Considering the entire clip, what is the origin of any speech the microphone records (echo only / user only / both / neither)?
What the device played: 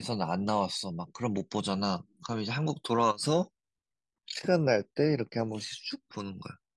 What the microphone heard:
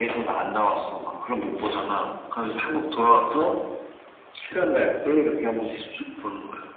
echo only